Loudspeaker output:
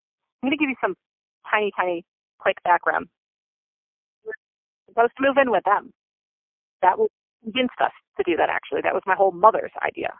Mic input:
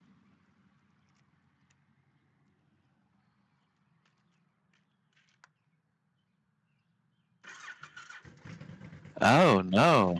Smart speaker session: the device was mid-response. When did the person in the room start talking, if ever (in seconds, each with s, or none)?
9.2 s